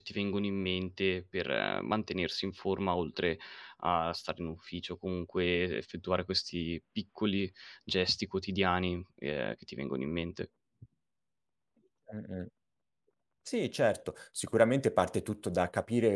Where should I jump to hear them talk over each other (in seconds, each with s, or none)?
none